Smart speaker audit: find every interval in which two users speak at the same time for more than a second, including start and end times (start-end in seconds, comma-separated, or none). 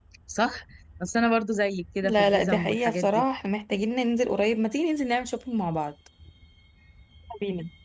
2.0-3.2